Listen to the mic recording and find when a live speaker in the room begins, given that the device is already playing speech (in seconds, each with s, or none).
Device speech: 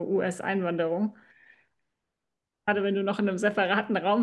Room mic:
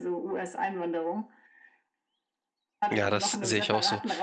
2.9 s